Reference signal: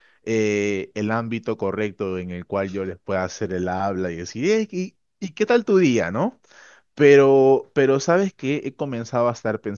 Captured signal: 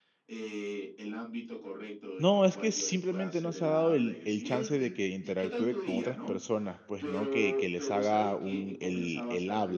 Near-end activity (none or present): present